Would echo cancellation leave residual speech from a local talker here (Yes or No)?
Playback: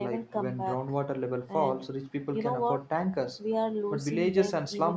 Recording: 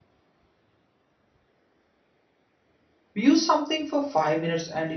Yes